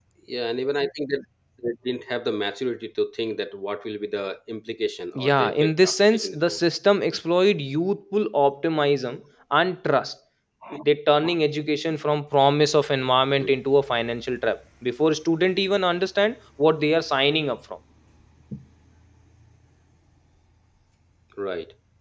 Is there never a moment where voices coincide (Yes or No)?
No